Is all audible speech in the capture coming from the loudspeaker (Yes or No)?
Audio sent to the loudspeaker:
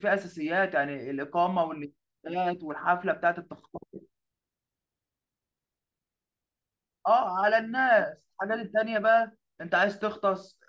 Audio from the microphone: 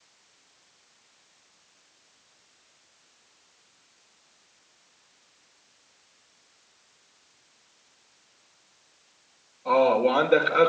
No